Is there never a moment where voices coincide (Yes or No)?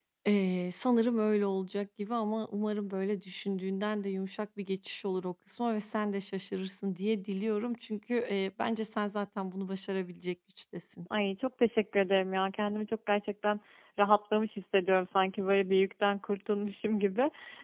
Yes